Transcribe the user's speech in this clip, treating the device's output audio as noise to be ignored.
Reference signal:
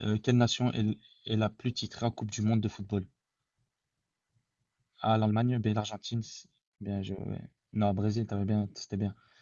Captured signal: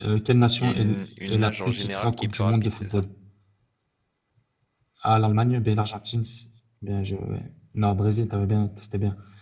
Il y a une, une nage en général qui est plus rapide, c'est ça?

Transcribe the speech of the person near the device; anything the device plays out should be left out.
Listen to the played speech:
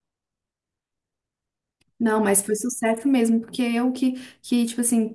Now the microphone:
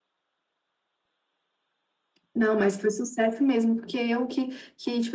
none

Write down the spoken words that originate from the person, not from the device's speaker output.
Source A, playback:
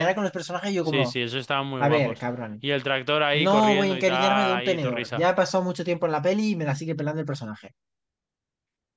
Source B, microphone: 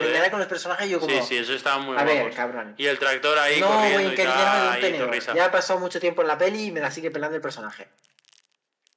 none

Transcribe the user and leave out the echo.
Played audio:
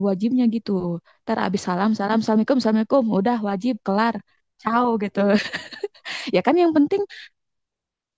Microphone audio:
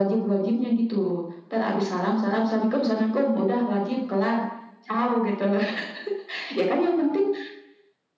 none

